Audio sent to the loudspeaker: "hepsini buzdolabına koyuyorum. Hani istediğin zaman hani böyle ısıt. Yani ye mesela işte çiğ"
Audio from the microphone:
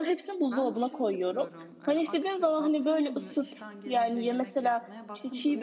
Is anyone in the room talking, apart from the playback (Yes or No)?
Yes